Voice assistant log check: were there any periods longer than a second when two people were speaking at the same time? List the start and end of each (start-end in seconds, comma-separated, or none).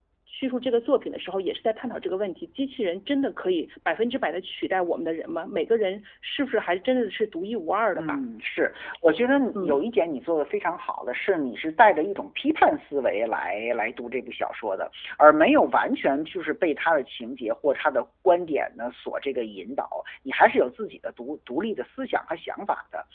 none